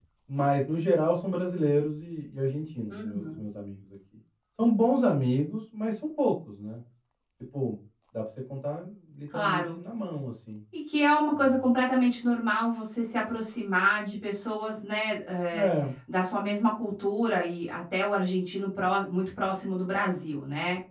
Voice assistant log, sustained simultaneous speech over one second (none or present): none